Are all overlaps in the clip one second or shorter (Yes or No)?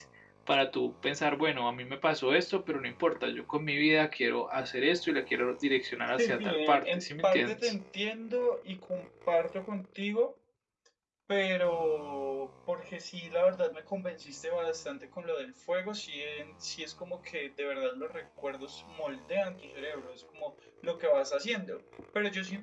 No